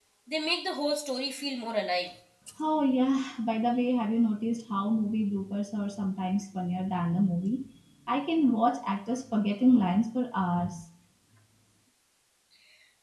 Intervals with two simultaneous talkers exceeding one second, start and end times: none

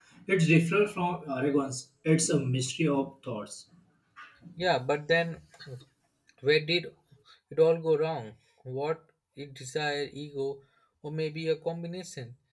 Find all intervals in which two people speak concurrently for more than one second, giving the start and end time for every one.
none

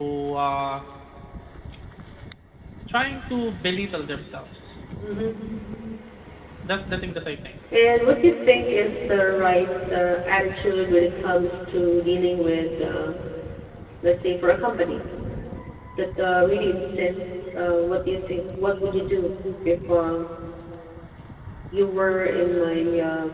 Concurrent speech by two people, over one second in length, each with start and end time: none

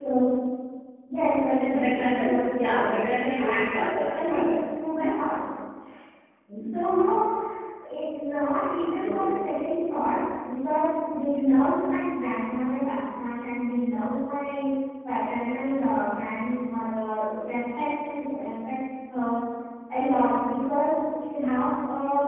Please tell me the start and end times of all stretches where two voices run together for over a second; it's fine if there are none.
1.7-4.5

